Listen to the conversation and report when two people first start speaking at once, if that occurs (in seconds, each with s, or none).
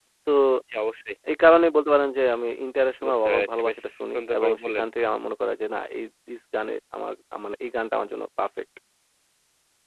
3.0 s